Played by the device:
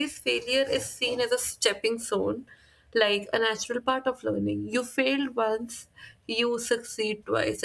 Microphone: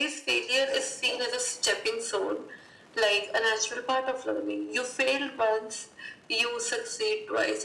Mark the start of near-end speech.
none

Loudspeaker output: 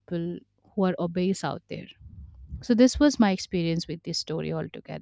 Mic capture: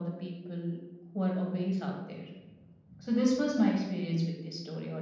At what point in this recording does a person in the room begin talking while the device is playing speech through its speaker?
none

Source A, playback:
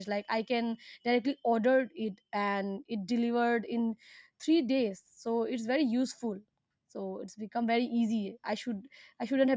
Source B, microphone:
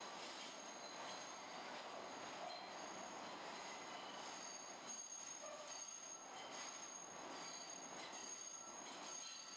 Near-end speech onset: none

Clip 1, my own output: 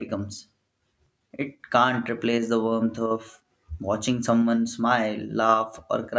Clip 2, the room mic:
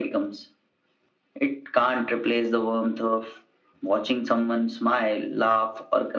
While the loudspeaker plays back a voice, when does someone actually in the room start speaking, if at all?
none

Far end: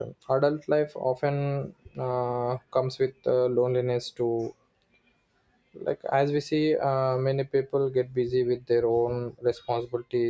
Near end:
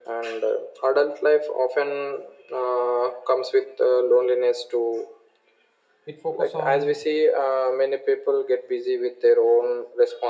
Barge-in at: 6.1 s

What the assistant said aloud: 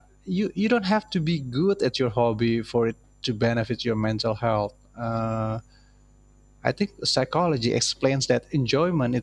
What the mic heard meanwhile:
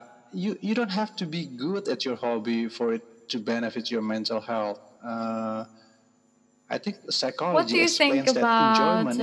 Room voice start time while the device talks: 7.5 s

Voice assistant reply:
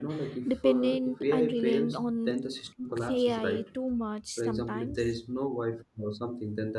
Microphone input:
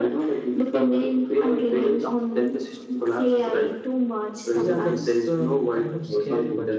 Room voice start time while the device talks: 4.5 s

